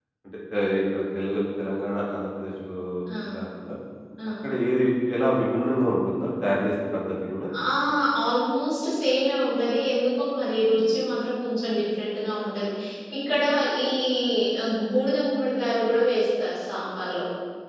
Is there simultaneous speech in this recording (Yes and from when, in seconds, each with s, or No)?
No